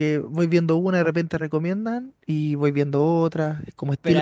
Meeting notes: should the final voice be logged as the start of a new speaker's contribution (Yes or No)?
Yes